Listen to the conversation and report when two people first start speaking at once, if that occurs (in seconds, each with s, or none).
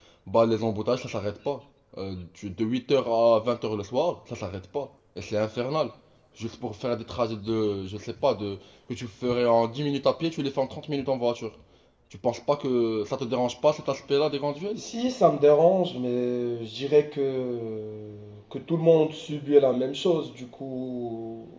none